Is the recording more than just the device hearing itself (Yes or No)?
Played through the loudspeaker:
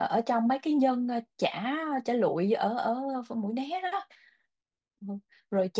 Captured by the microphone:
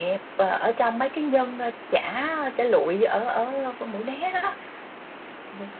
No